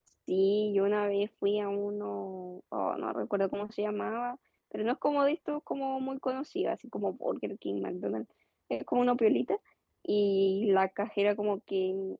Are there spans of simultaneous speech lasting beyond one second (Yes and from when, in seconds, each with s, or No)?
No